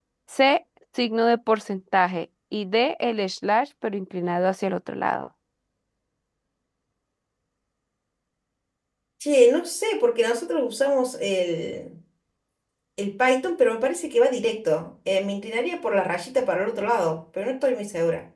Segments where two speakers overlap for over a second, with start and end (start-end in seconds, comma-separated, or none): none